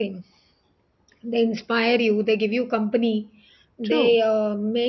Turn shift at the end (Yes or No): No